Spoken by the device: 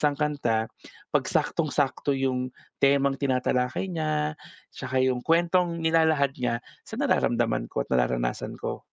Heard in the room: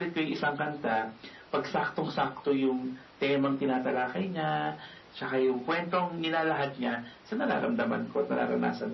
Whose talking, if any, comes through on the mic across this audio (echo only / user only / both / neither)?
echo only